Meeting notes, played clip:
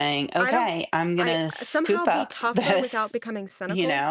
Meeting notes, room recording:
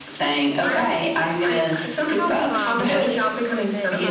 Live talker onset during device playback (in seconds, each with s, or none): 2.4 s